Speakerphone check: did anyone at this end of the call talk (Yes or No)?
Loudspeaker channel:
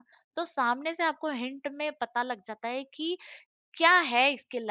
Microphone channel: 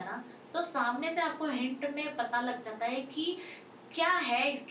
No